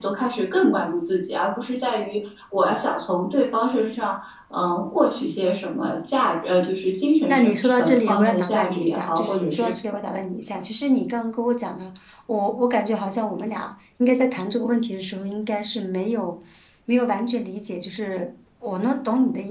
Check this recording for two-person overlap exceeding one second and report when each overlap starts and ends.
7.3-9.7

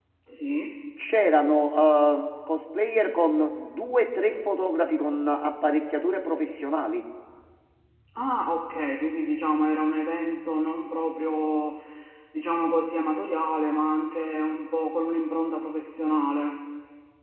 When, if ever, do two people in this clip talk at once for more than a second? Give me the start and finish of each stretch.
none

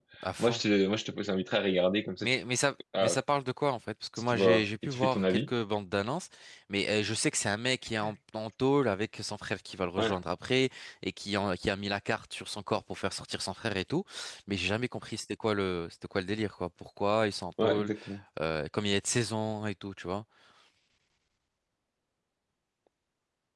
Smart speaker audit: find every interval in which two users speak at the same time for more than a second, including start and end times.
4.2-5.5

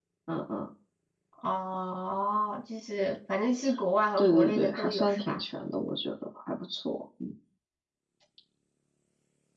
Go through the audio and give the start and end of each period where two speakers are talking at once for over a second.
4.2-5.4

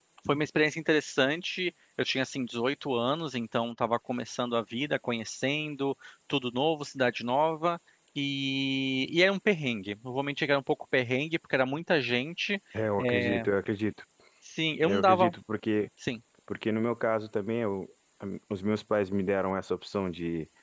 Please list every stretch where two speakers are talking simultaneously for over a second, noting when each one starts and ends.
none

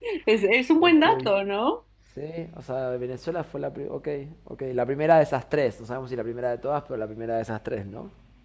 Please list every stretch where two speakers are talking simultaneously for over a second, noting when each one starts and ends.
none

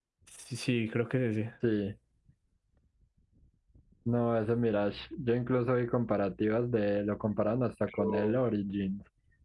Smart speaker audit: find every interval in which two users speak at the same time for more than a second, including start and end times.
none

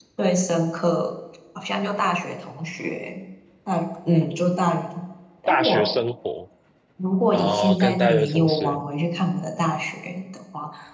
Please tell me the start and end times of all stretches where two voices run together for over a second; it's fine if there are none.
7.3-8.8

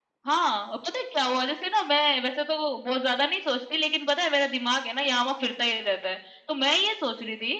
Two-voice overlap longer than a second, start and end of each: none

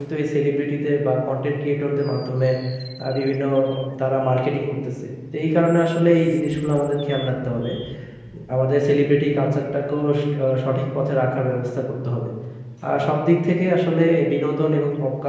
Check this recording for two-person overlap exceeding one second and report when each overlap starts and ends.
none

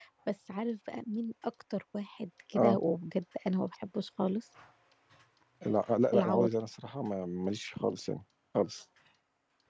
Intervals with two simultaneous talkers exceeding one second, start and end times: none

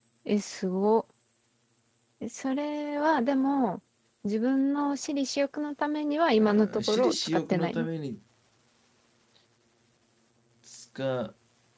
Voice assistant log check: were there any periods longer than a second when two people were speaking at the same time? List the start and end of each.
6.4-7.9

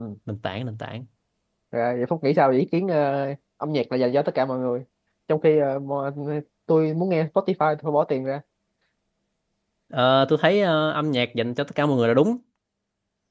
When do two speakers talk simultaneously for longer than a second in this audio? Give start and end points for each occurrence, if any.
none

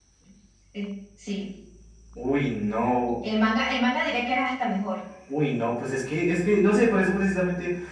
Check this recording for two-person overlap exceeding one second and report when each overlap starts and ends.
none

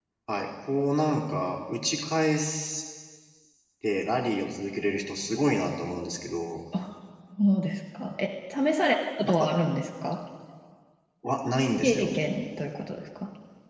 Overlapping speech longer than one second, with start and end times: none

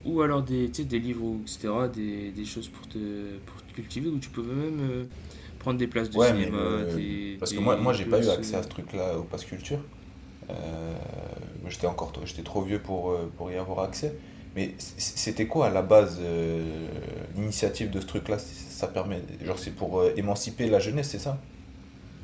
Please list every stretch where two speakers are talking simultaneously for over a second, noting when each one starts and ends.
6.1-8.6

